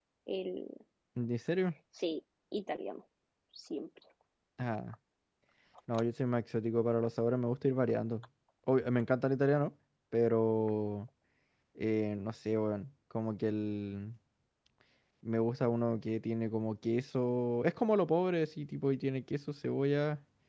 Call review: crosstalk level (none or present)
none